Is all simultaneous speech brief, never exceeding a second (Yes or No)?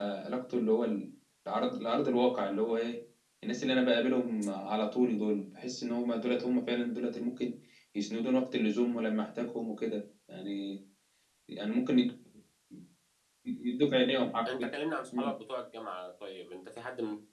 Yes